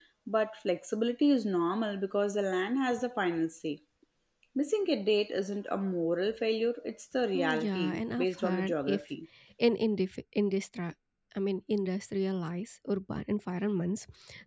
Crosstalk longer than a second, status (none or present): present